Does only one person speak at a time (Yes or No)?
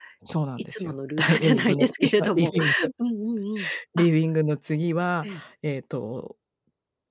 No